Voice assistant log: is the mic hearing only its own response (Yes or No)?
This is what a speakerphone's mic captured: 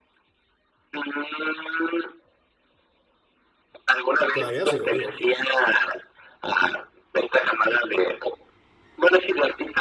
No